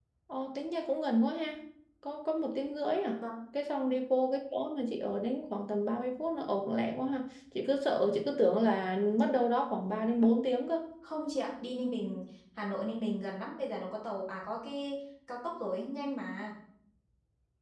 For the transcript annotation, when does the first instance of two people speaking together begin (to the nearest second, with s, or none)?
none